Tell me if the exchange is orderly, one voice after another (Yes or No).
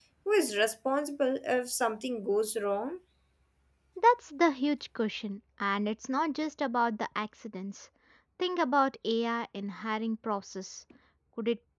Yes